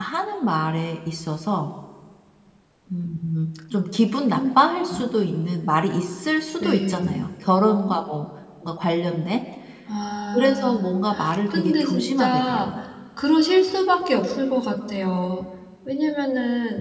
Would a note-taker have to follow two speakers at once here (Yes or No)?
Yes